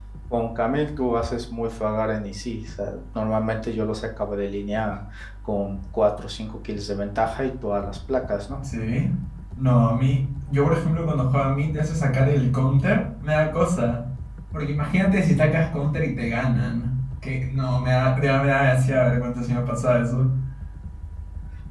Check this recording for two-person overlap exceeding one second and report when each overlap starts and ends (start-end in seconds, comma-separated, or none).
none